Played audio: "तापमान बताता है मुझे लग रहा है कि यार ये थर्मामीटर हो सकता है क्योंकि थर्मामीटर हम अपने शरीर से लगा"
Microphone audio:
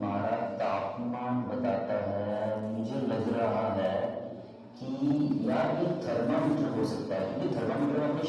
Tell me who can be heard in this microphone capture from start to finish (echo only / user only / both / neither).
echo only